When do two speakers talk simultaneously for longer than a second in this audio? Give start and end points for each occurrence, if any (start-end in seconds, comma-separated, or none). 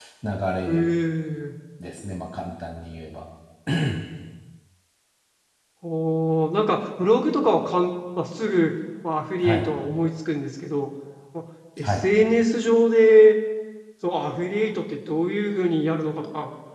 none